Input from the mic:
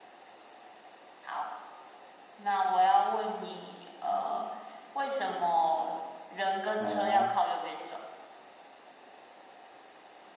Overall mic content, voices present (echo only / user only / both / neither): both